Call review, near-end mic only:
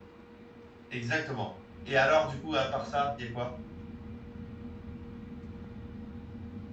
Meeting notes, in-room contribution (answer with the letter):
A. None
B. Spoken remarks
B